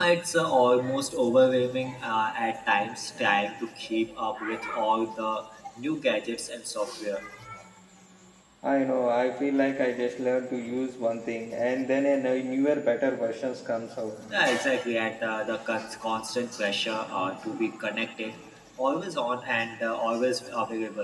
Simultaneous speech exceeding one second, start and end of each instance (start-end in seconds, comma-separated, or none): none